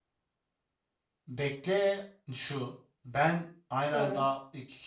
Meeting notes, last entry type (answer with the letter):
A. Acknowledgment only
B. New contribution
A